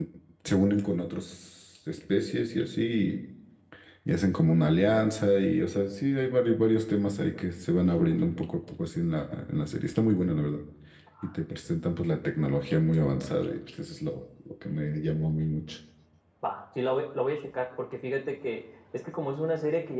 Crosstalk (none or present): none